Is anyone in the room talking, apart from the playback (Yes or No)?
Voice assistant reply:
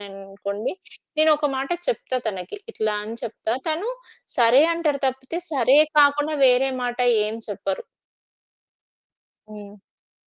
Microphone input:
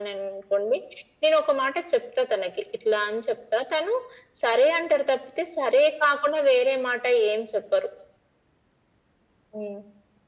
No